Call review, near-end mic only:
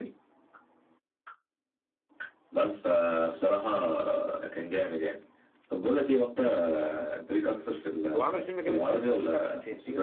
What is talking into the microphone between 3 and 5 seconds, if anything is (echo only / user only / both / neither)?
echo only